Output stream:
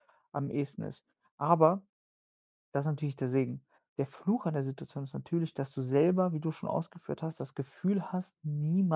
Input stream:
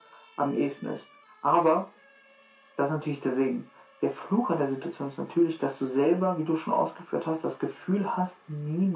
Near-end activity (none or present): none